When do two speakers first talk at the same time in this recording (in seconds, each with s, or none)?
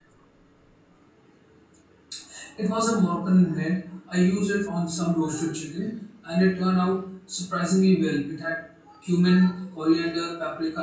none